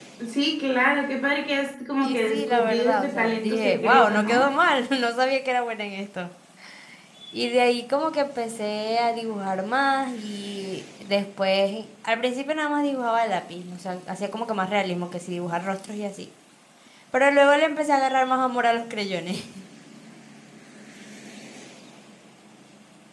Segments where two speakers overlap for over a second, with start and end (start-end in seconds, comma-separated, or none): 2.0-4.5